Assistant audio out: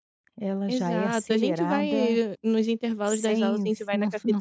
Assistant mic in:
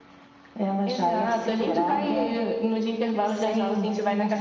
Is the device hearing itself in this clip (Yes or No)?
Yes